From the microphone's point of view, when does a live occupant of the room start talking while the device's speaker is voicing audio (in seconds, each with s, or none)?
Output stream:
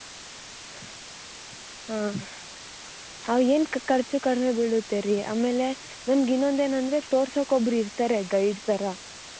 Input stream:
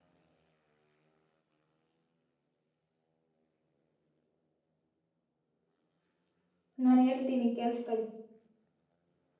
6.8 s